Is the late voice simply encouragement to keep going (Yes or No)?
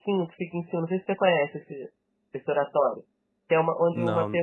Yes